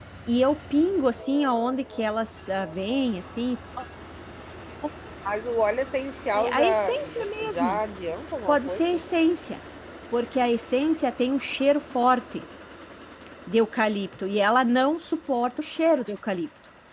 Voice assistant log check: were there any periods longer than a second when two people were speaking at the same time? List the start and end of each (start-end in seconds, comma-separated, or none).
6.3-7.8